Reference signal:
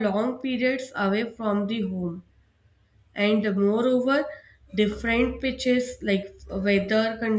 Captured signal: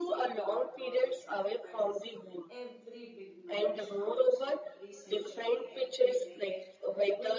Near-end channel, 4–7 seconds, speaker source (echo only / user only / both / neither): both